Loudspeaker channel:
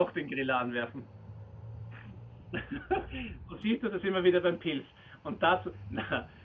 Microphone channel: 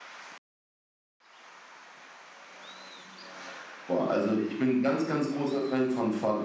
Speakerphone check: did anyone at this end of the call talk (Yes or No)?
Yes